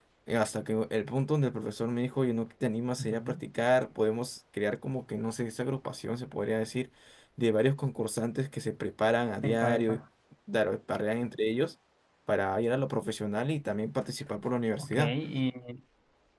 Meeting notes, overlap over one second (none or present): none